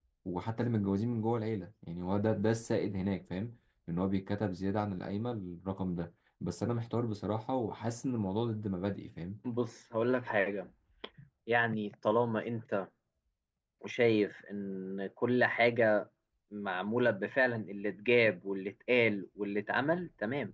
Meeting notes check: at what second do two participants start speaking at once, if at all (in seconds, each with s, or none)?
none